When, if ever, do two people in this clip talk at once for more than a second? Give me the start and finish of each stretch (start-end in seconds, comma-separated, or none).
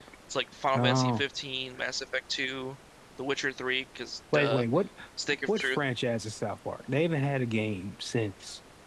none